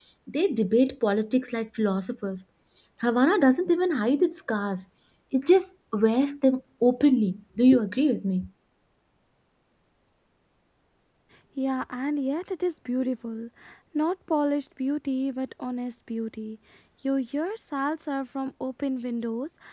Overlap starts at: none

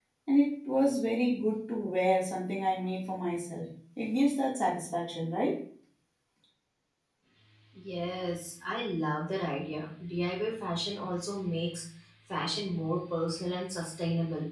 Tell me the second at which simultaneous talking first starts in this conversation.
none

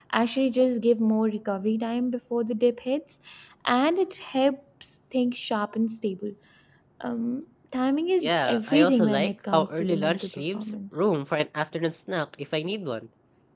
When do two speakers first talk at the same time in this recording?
8.2 s

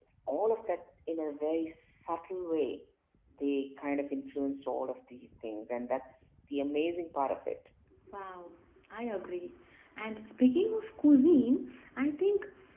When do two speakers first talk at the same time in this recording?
none

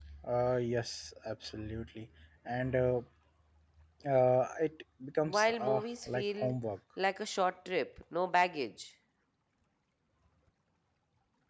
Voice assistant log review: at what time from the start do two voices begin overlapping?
5.3 s

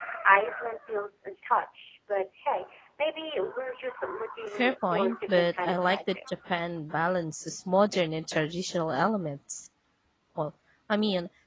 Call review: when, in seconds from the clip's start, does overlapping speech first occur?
4.5 s

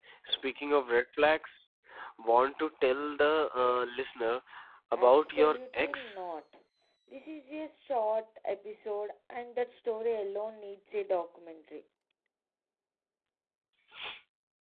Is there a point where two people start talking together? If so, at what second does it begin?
5.0 s

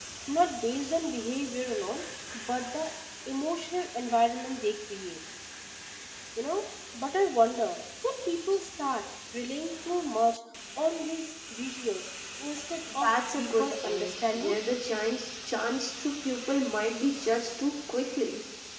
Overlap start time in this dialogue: 12.9 s

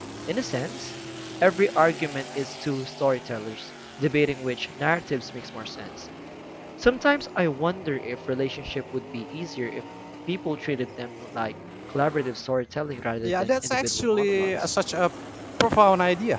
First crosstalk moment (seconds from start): 13.2 s

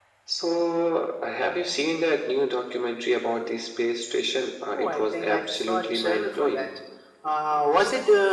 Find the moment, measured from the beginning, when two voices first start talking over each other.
4.8 s

